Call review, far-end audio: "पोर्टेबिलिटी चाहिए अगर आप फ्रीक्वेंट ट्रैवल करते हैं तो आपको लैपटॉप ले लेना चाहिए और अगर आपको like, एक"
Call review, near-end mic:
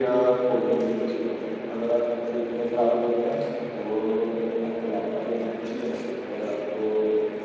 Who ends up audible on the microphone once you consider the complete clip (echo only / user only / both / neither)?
echo only